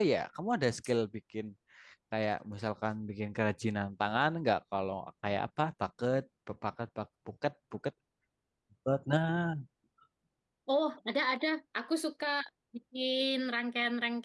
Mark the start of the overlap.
none

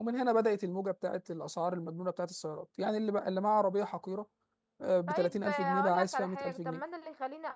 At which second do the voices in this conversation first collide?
5.1 s

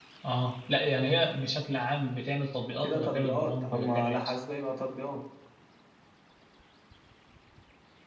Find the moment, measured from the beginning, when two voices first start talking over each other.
2.8 s

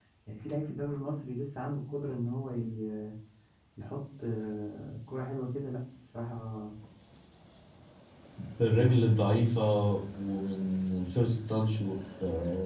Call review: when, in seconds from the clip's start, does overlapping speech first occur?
none

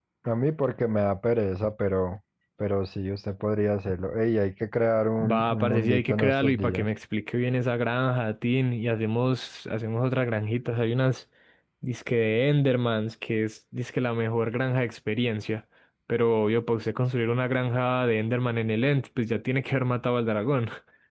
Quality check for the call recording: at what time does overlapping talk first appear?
5.2 s

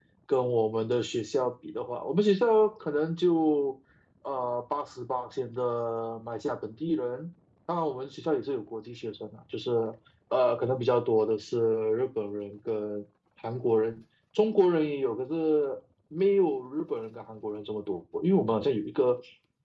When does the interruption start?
none

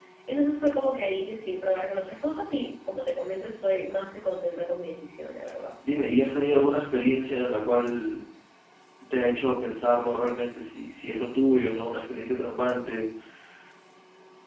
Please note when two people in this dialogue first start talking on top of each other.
none

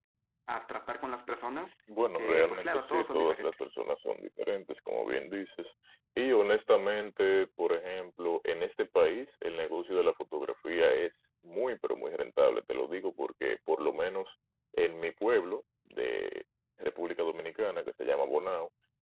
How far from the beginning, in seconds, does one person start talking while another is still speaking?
2.2 s

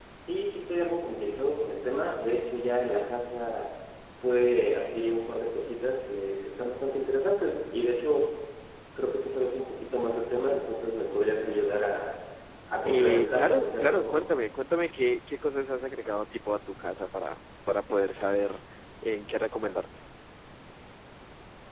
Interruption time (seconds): 12.8 s

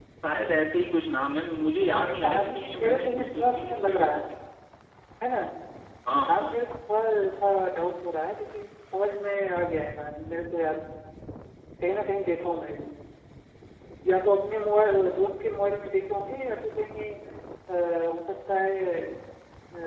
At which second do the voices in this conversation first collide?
1.9 s

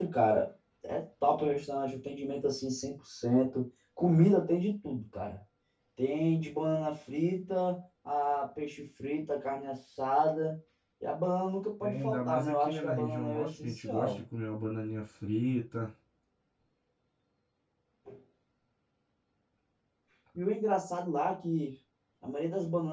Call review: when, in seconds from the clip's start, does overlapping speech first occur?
11.8 s

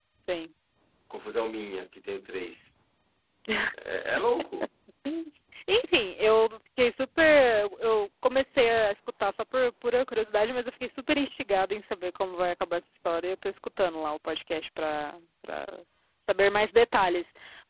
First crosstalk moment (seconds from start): none

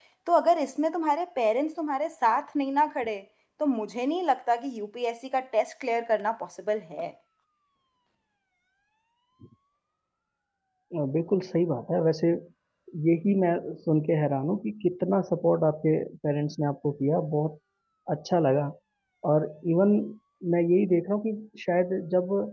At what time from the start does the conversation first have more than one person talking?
none

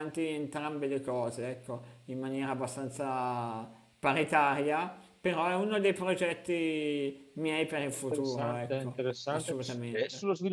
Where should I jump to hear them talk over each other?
7.9 s

